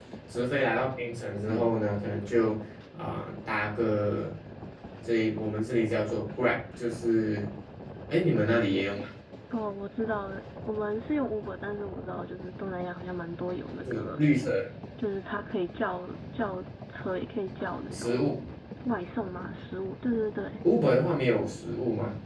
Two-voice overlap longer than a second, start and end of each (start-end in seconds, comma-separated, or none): none